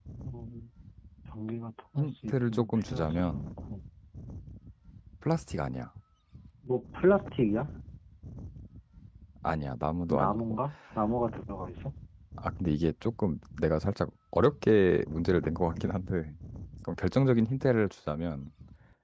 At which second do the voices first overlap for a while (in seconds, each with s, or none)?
2.0 s